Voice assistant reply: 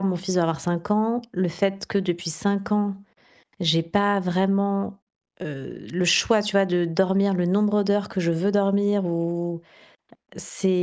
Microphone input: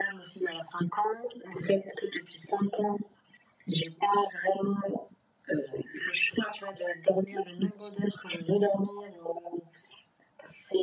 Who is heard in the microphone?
echo only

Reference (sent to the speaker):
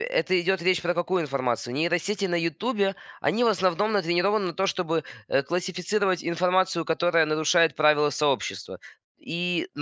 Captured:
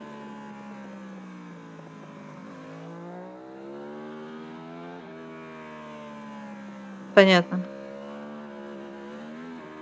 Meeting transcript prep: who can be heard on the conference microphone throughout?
user only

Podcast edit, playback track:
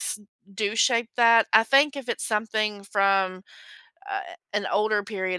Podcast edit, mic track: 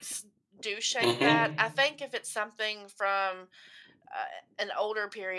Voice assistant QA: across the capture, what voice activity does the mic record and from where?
both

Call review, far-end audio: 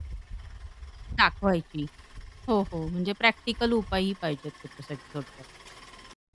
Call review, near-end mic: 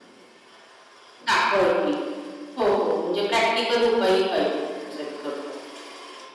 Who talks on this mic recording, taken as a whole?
echo only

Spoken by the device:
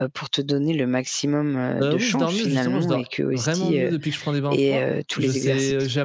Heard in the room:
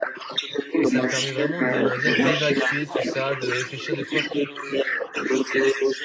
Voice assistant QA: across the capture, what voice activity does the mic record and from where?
both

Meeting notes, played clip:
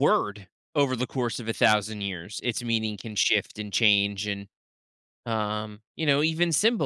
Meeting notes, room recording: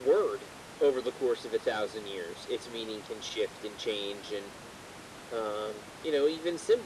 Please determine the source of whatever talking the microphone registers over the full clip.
echo only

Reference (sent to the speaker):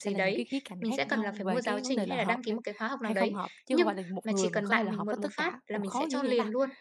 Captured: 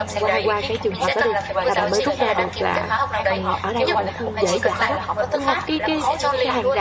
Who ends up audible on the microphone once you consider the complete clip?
both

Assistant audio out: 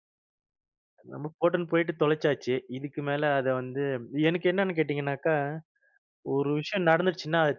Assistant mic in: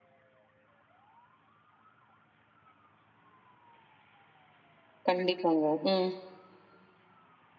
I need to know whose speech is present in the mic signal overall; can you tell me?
user only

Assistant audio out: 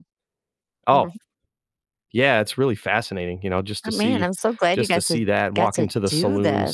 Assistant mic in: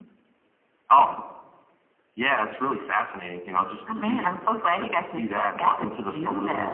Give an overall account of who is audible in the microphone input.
echo only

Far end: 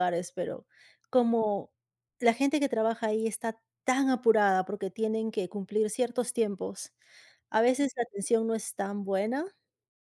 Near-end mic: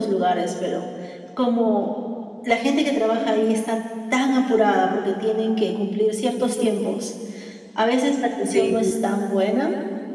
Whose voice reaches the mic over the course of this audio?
both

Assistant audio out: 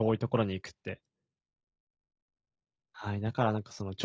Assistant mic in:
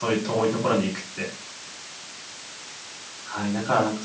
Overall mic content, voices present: echo only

